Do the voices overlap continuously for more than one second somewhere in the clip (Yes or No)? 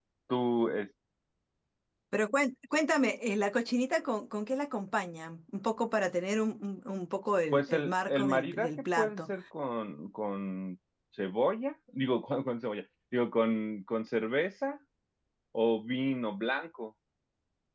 Yes